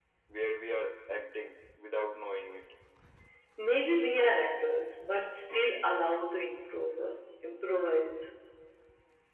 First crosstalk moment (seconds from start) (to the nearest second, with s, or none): none